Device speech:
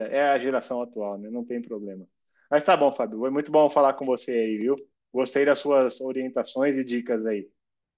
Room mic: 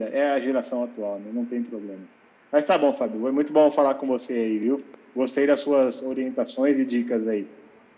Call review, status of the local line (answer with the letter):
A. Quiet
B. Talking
A